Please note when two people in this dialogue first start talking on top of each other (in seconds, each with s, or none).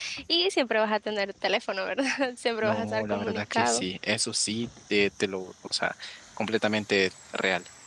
2.6 s